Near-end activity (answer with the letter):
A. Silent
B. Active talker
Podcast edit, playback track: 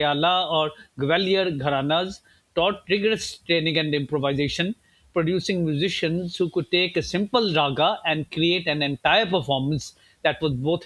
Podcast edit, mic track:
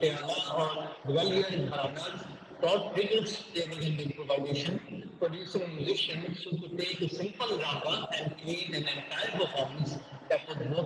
A